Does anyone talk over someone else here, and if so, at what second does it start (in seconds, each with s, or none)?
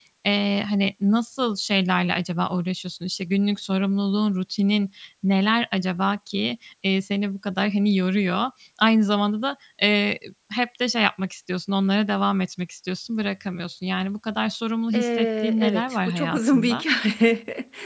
14.9 s